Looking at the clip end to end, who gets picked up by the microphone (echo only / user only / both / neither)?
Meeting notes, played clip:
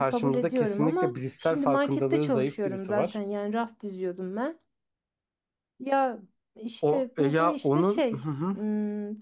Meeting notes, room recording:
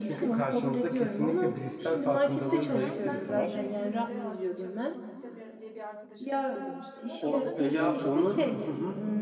both